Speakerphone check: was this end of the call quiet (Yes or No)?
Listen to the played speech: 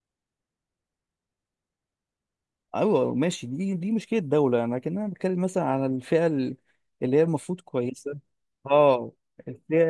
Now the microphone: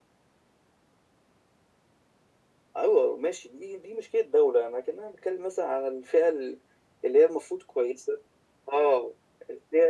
Yes